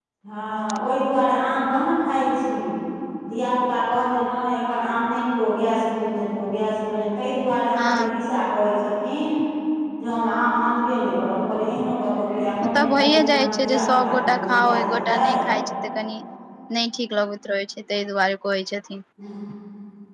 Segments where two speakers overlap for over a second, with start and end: 12.7-15.2

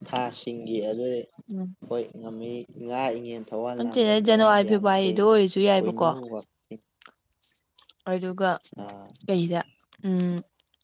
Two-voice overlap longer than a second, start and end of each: 3.8-5.2

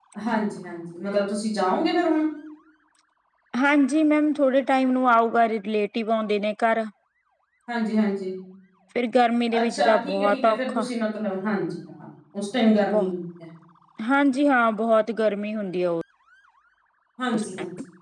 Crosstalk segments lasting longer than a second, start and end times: 9.6-10.9

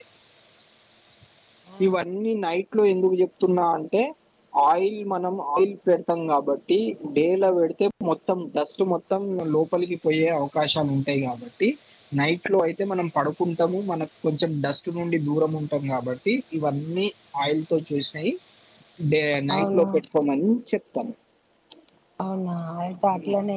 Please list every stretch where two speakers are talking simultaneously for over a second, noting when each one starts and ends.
none

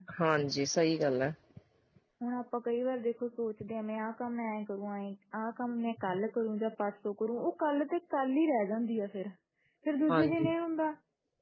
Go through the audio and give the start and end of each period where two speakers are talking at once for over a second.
none

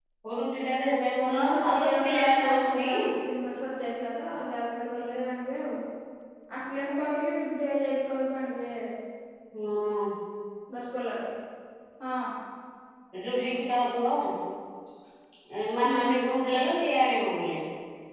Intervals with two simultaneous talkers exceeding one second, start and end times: 1.3-2.9

